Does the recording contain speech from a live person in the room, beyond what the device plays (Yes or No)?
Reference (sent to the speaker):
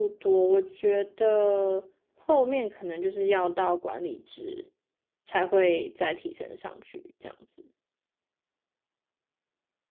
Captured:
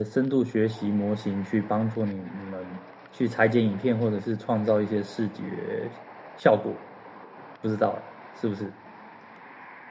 Yes